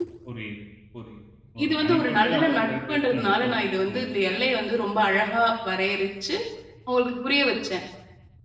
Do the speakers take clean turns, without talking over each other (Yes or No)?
No